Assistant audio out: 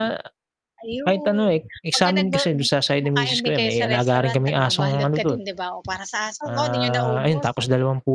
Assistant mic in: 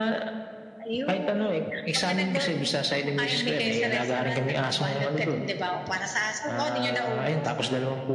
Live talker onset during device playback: none

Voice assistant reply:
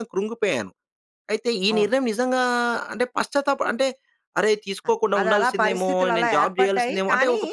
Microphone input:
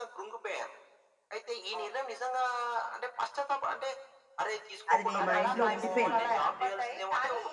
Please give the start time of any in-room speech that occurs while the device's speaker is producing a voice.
5 s

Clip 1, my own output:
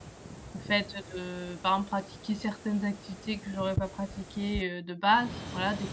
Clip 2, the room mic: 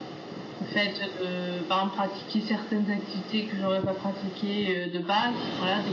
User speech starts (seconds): none

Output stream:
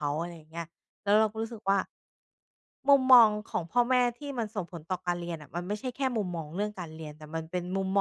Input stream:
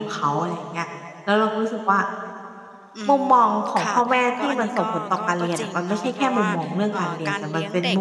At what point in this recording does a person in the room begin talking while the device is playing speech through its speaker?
3 s

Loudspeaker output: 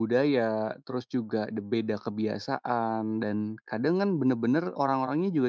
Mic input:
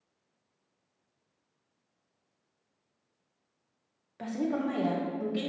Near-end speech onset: 4 s

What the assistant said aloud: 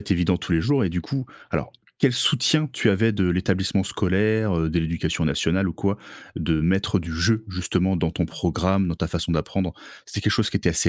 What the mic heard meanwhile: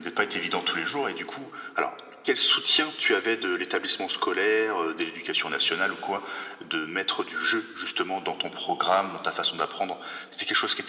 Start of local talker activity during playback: none

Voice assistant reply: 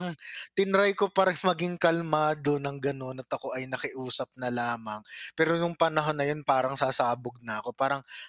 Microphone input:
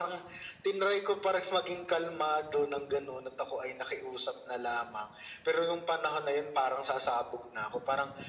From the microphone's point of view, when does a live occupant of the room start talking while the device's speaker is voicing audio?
none

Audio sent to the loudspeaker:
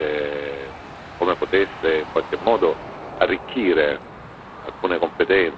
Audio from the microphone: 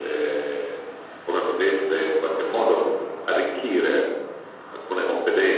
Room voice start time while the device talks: none

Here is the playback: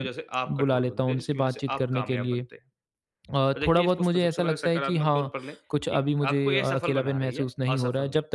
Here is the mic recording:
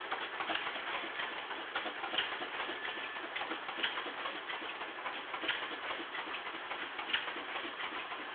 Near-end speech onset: none

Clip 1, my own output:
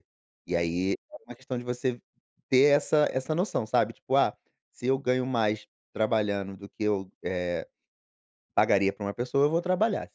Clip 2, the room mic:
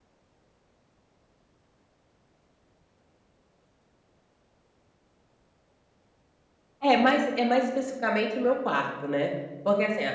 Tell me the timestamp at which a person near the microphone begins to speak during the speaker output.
7 s

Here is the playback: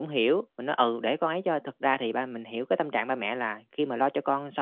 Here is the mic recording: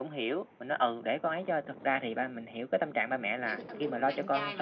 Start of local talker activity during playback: 3 s

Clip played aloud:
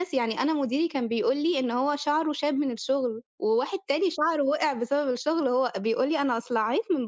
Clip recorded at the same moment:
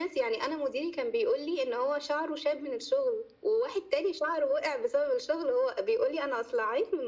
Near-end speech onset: none

